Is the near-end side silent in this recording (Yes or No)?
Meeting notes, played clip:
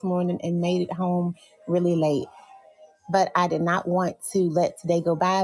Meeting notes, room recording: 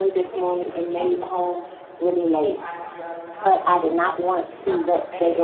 No